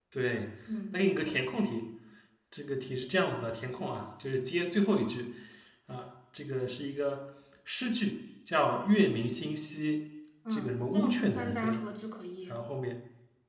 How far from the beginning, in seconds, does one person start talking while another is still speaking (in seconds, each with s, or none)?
10.5 s